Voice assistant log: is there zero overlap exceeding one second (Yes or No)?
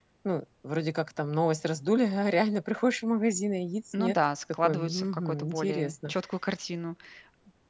No